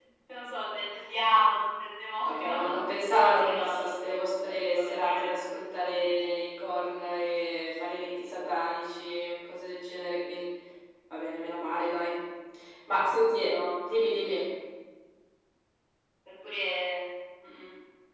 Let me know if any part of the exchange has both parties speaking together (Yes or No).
Yes